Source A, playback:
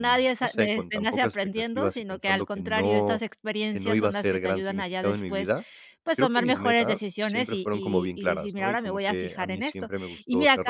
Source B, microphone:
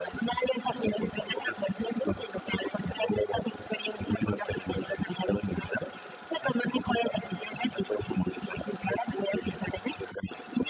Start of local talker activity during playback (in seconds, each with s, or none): none